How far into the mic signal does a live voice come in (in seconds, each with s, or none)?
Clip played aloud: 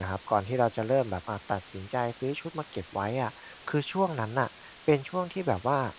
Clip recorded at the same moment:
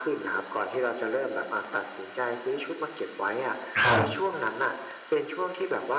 3.8 s